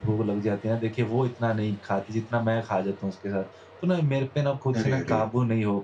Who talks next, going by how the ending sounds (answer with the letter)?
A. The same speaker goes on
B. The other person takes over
A